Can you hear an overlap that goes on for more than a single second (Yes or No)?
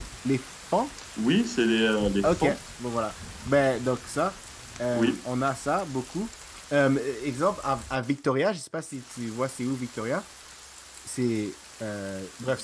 No